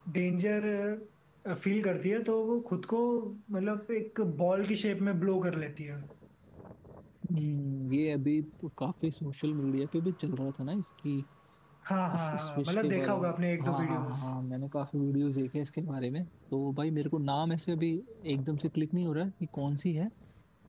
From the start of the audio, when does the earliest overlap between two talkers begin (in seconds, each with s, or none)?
12.1 s